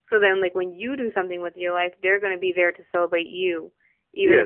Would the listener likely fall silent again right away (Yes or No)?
No